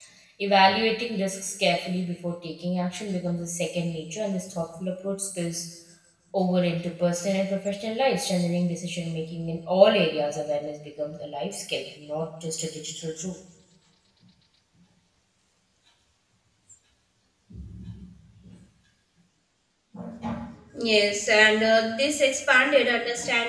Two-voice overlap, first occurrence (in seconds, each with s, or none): none